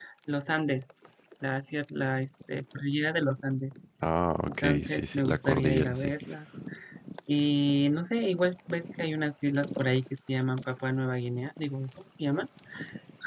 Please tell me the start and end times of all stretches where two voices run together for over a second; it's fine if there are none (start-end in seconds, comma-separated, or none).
4.6-6.1